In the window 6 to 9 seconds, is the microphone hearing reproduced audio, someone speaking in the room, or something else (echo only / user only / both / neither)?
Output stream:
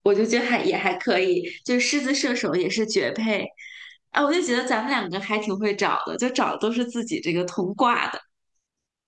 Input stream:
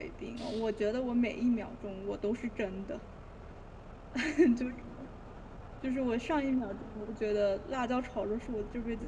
user only